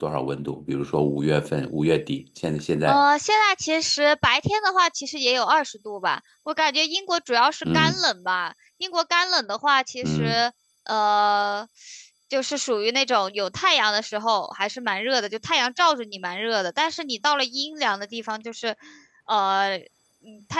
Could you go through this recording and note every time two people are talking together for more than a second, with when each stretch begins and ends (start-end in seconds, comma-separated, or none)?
none